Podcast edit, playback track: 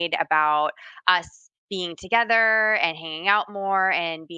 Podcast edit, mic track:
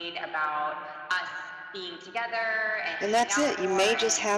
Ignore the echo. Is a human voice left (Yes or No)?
Yes